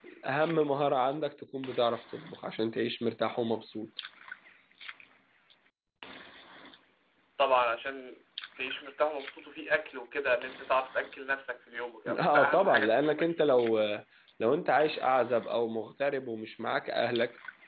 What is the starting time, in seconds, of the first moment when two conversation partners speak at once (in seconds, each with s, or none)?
12.1 s